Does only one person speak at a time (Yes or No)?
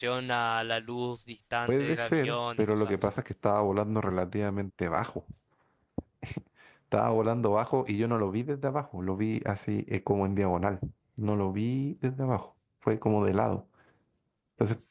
No